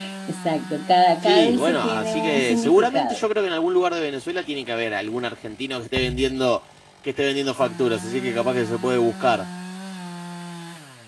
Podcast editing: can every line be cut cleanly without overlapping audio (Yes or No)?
No